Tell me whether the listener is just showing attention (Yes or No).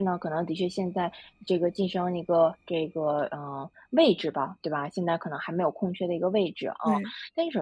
Yes